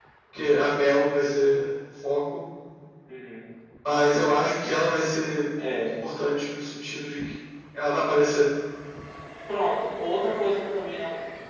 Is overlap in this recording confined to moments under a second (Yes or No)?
Yes